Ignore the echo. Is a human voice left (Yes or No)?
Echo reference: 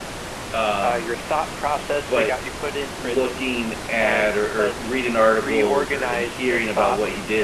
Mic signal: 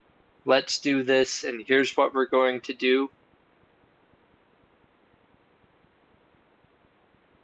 Yes